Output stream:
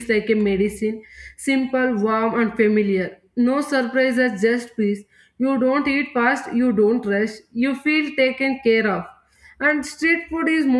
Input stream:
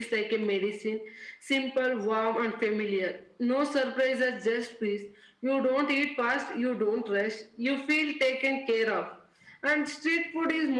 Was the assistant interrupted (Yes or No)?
No